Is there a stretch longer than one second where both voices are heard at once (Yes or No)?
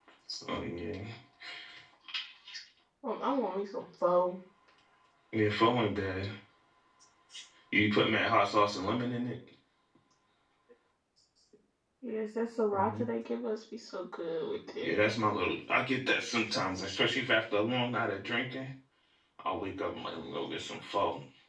No